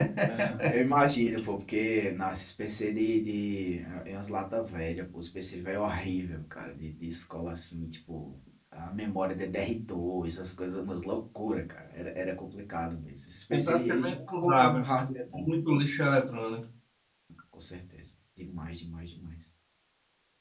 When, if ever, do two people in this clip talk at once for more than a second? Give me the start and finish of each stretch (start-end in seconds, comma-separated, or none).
13.5-14.9